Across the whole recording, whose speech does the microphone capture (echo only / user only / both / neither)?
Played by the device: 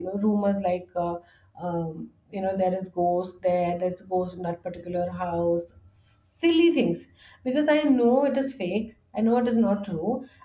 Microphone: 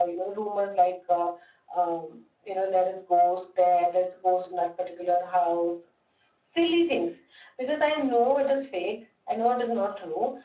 echo only